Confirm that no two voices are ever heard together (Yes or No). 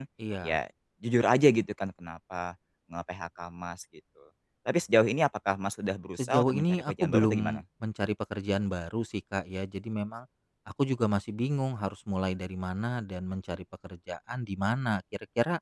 No